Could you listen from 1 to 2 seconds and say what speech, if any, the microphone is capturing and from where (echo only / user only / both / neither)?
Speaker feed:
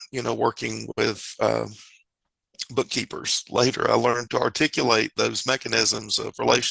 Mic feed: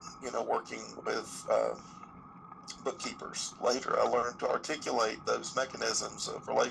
echo only